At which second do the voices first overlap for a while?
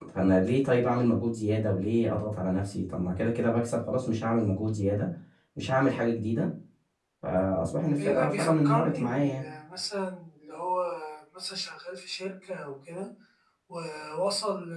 8.0 s

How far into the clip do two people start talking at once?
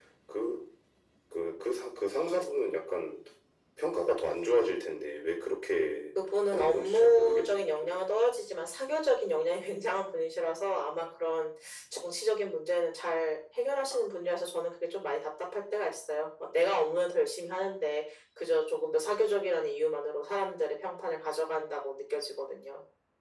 6.5 s

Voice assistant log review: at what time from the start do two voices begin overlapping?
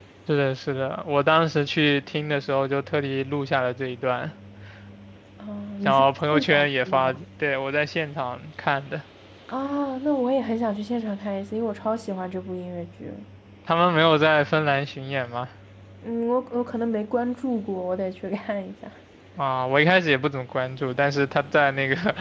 5.8 s

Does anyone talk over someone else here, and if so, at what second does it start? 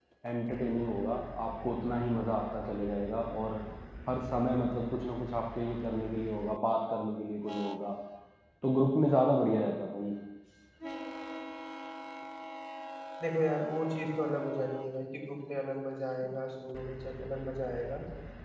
none

